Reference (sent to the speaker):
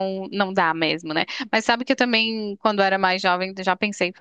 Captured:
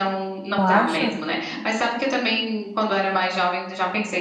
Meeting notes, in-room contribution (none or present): present